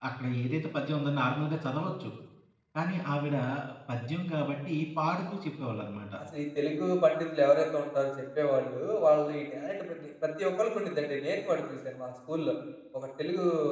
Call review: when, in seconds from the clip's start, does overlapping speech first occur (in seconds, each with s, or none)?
none